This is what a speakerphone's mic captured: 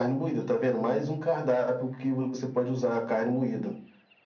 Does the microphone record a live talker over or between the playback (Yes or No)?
No